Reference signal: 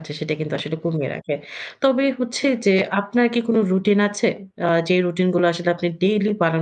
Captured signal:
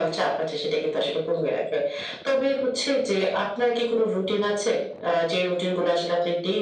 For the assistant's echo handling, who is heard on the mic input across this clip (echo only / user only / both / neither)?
echo only